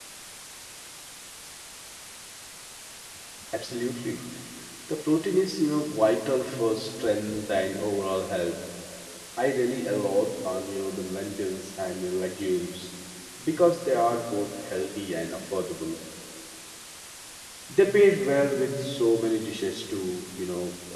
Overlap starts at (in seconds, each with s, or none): none